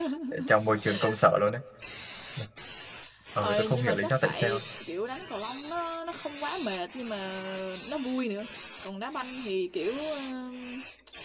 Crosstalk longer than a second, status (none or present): present